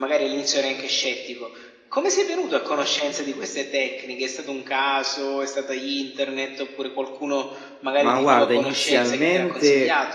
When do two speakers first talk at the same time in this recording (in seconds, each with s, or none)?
8.0 s